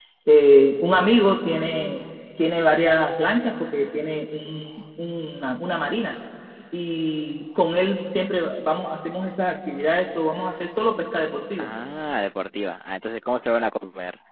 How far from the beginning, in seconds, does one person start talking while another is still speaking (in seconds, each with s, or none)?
none